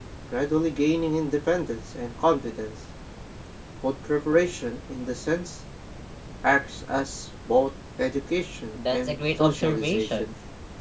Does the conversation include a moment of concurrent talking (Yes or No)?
Yes